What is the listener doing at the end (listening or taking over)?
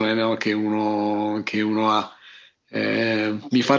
listening